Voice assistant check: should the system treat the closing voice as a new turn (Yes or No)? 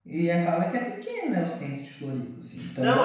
Yes